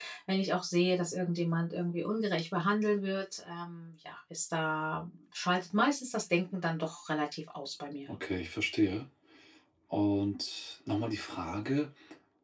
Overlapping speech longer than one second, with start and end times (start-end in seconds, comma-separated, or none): none